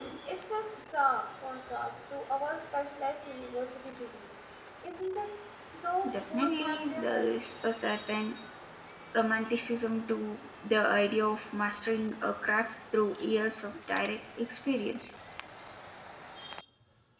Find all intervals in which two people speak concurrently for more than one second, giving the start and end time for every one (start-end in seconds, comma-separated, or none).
6.1-7.4